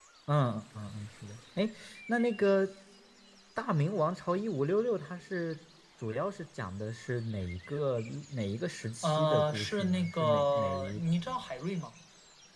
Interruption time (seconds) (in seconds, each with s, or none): 9.0 s